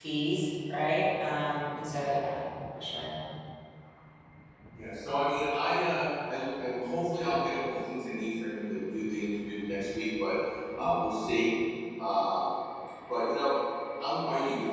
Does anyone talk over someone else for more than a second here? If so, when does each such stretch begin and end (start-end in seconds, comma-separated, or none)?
none